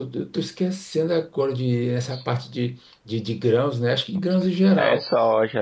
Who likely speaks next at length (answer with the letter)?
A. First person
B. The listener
B